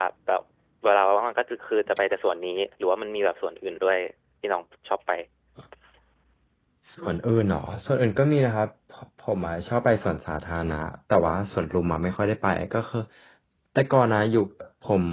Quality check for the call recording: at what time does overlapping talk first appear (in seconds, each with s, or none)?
none